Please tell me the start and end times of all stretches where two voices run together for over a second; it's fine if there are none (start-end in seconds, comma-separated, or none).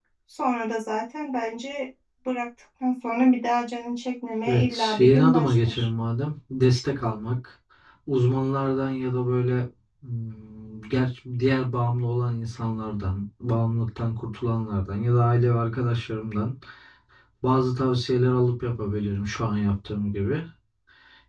4.4-5.9